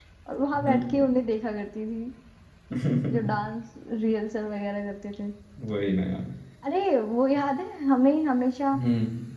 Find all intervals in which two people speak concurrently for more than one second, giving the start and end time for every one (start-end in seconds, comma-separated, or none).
none